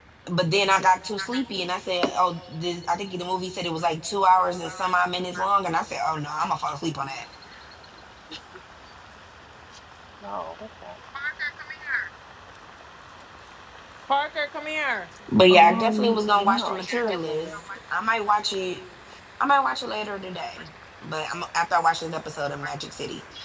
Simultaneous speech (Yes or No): Yes